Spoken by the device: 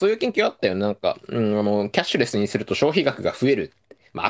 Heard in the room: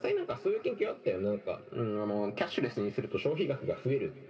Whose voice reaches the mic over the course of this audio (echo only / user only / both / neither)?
echo only